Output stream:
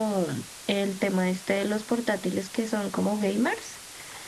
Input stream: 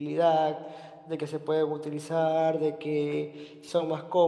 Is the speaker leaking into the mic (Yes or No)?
No